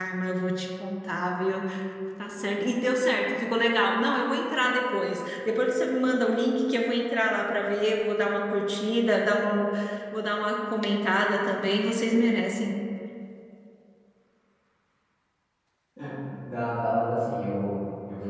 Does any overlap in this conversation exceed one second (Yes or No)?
No